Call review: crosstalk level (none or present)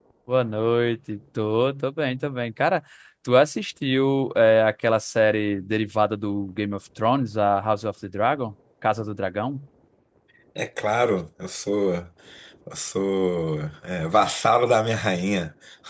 none